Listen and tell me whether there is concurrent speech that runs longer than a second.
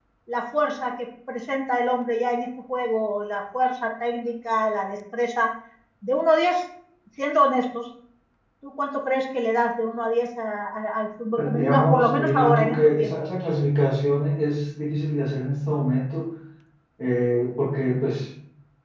Yes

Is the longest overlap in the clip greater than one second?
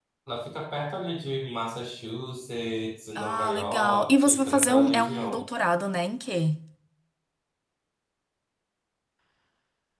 Yes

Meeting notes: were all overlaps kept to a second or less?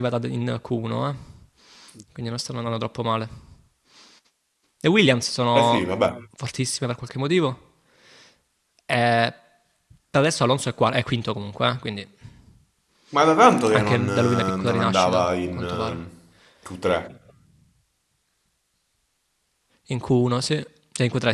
No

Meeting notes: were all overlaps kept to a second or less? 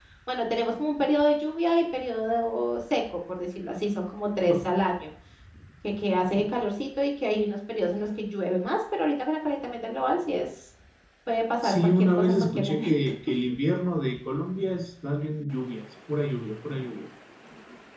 No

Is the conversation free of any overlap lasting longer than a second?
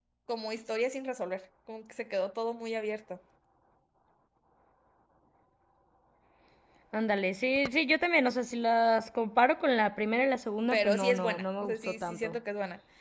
No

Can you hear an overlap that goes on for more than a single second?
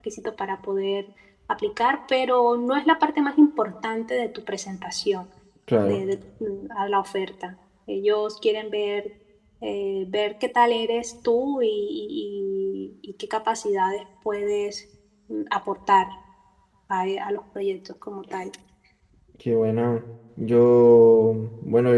No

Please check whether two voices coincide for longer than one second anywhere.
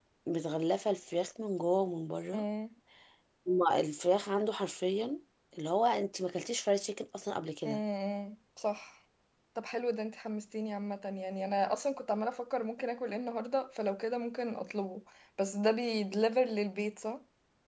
No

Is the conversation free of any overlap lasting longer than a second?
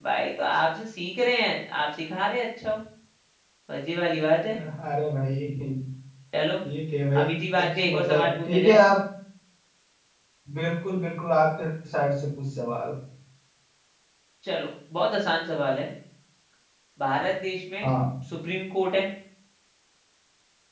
No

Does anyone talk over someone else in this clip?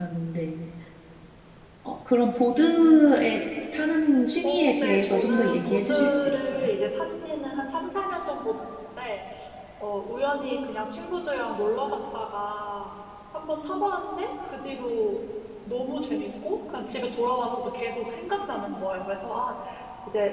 Yes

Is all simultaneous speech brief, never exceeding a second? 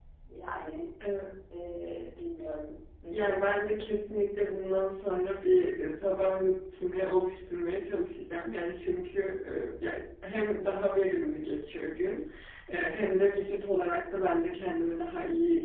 Yes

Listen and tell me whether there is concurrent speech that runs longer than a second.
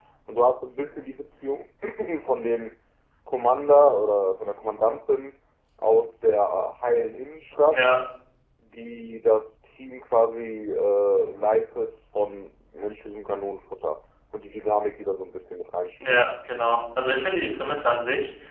No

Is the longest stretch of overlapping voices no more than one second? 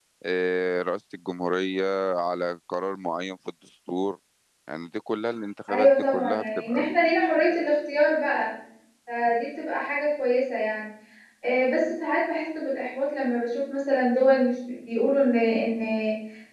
No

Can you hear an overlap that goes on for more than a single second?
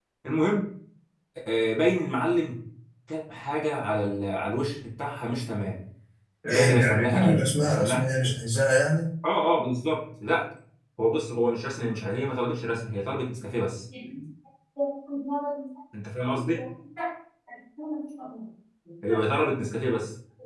Yes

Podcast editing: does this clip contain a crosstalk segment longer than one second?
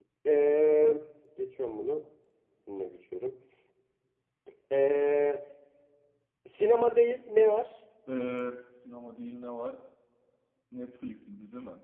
No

